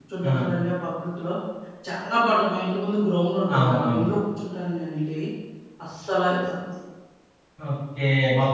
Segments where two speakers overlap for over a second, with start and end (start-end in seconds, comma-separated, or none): none